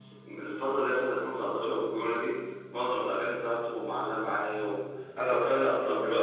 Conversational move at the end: listening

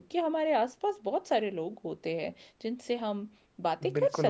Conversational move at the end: taking over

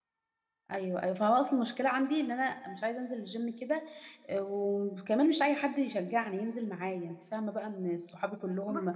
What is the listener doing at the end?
listening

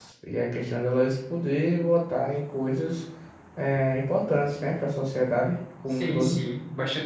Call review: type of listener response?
taking over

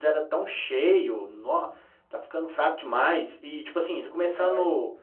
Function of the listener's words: listening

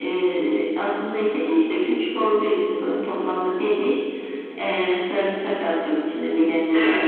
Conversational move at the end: taking over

